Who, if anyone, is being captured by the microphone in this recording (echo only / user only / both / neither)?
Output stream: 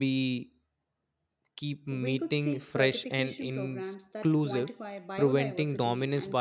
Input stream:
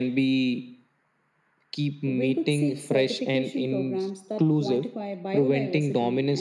echo only